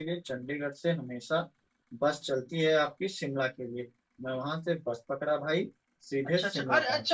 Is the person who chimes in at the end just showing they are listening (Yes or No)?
No